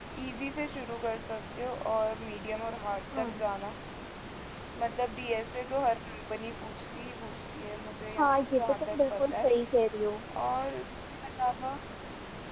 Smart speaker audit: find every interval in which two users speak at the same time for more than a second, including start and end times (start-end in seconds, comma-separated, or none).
8.2-9.5